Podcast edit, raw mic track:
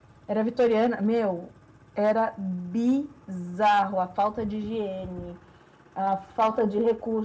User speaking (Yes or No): No